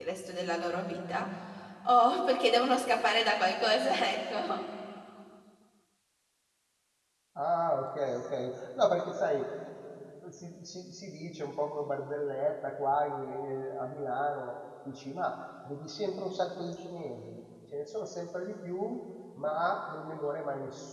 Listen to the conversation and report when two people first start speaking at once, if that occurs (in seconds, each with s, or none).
none